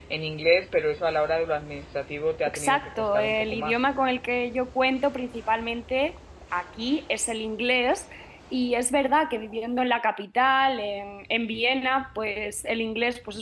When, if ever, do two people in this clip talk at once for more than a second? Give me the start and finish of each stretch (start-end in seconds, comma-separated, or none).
2.5-3.8